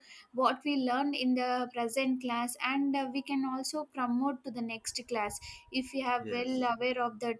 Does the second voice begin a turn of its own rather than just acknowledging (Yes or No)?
No